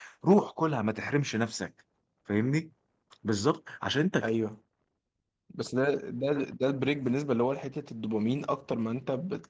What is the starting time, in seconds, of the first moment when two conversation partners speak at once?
none

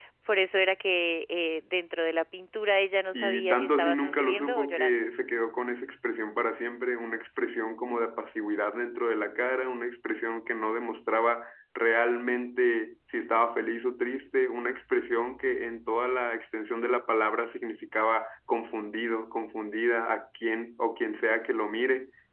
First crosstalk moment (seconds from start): 3.1 s

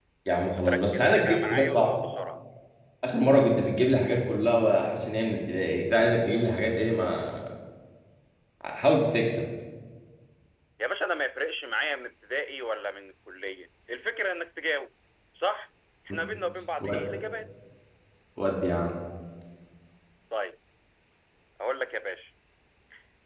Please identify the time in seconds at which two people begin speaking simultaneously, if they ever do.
0.5 s

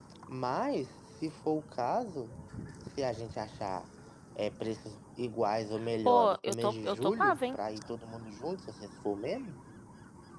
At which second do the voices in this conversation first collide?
6.0 s

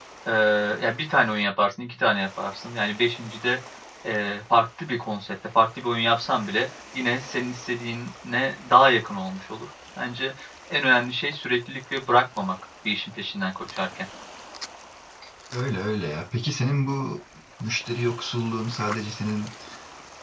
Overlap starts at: none

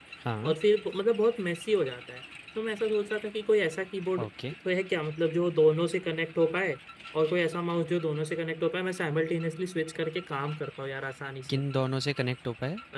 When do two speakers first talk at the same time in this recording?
none

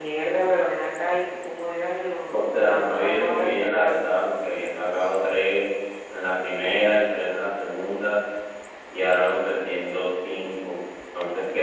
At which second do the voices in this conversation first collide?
2.3 s

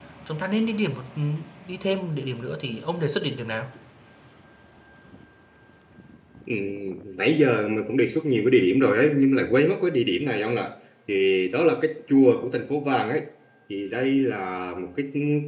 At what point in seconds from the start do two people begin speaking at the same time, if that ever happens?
none

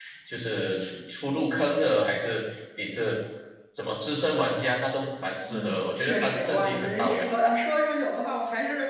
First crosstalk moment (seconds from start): 5.5 s

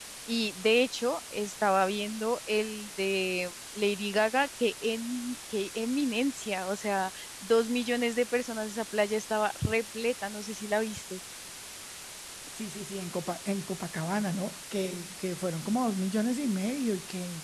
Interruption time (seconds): none

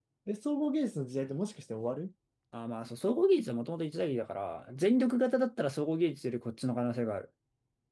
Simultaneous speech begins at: none

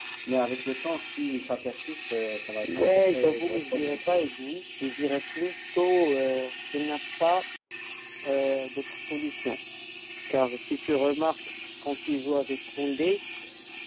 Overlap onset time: 2.6 s

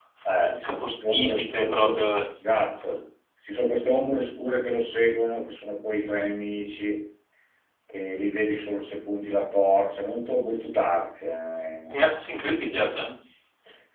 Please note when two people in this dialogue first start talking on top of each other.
0.5 s

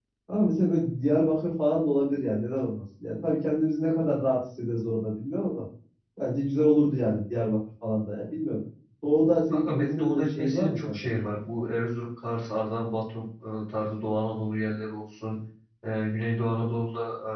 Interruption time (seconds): 9.5 s

